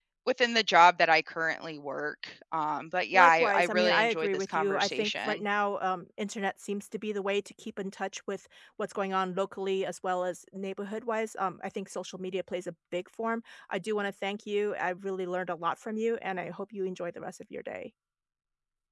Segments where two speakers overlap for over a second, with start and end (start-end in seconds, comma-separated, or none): 3.1-5.4